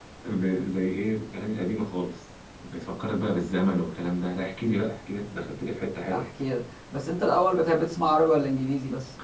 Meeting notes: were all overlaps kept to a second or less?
Yes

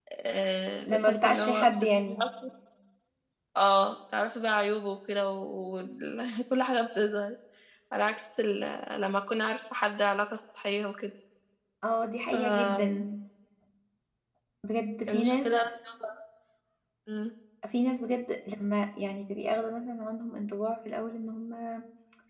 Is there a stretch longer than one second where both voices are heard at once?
Yes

